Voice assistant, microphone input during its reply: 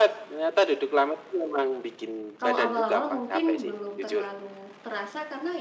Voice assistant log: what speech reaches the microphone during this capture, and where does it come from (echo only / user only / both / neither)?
both